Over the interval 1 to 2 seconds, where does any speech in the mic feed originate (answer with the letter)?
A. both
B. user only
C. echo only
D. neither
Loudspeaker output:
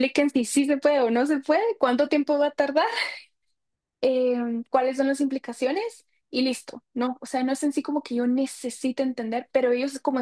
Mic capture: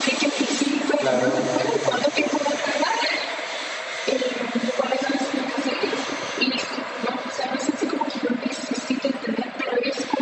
A